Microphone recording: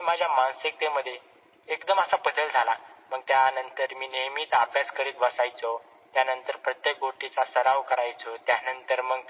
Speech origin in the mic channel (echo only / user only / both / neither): echo only